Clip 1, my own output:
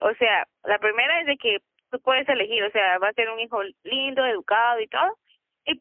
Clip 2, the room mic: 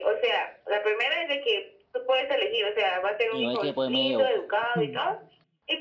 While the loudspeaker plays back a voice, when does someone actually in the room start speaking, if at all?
3.3 s

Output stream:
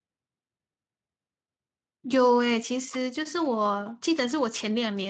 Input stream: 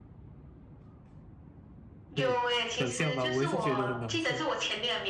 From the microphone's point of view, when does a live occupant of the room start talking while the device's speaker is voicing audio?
2.1 s

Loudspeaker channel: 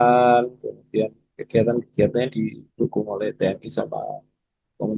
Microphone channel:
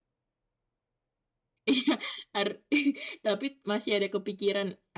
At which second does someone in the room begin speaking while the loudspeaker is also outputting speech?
1.7 s

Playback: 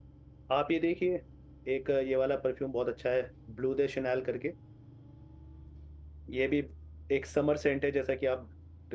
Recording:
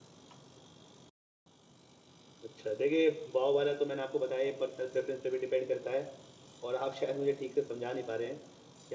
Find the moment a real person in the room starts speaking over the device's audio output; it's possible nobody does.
2.4 s

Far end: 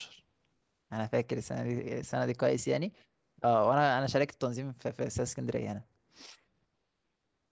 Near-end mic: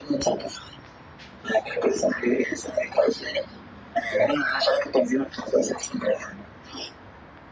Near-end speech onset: none

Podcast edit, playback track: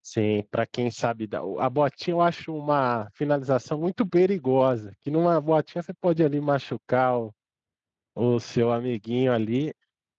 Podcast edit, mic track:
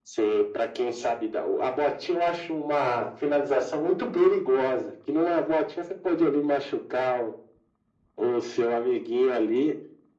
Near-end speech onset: none

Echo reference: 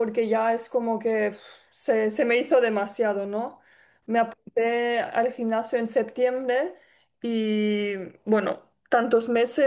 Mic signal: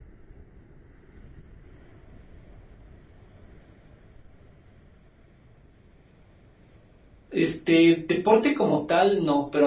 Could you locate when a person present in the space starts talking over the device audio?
7.3 s

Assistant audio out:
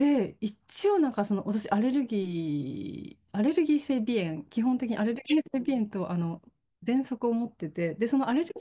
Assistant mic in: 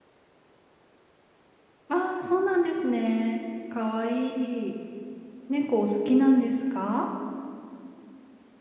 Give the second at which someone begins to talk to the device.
1.9 s

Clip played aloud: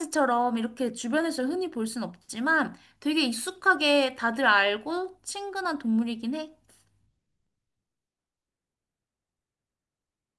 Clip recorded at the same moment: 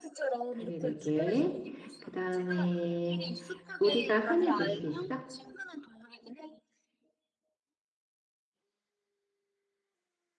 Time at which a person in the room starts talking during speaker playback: 0.5 s

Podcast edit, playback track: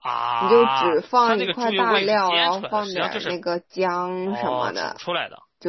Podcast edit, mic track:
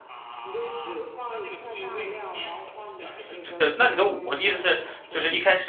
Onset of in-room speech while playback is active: 3.4 s

